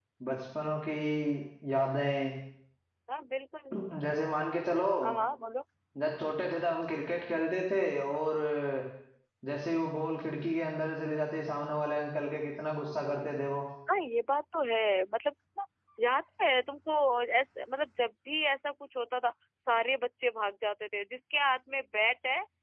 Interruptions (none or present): none